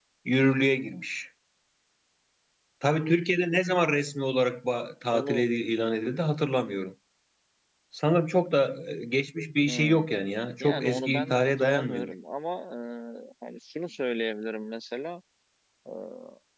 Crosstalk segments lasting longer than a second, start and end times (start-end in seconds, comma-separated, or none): 10.6-12.1